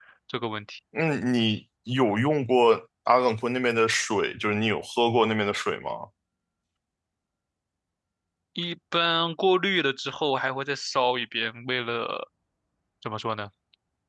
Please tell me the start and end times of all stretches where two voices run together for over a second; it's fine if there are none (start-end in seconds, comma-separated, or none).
none